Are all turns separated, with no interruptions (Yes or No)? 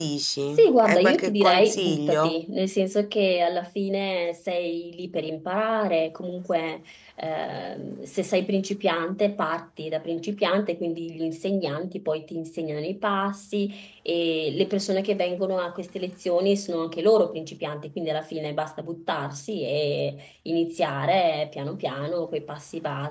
No